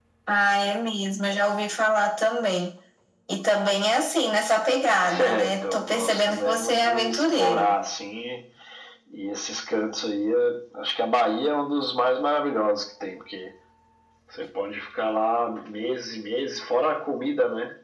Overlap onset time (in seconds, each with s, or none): 5.0 s